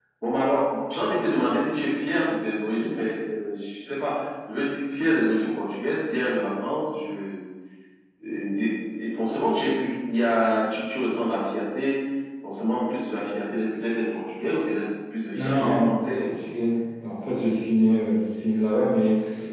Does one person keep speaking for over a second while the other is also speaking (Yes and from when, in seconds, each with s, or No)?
Yes, from 15.3 s